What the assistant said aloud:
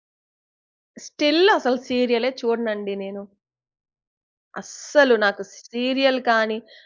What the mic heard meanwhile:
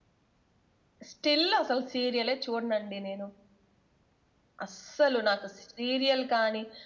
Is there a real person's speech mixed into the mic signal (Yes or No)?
No